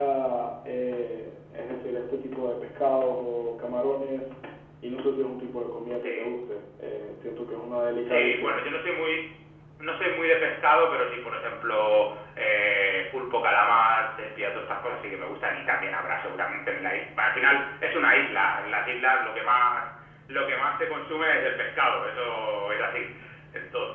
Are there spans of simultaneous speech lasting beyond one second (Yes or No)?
No